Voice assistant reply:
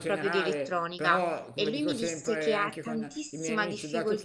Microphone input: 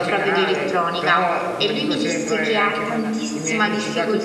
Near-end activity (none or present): none